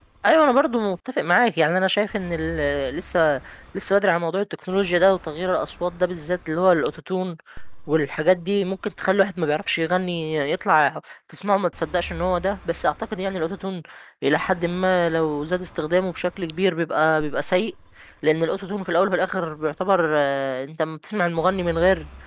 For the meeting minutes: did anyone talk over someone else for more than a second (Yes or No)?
No